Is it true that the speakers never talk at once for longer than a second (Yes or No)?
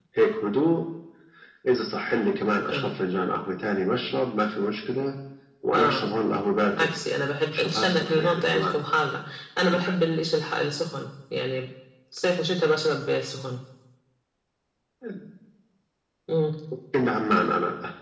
No